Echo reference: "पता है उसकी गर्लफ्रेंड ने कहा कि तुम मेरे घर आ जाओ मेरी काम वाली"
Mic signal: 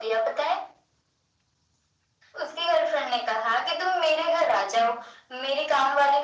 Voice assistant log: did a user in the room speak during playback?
No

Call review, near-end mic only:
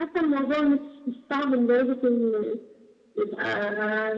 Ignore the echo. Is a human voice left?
No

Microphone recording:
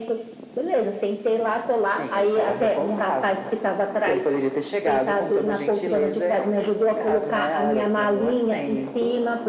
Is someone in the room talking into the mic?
No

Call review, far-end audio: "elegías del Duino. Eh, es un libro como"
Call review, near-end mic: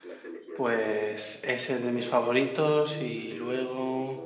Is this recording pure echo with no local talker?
No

